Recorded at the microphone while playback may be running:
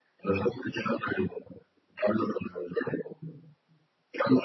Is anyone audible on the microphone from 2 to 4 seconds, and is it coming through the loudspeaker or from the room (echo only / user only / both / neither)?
echo only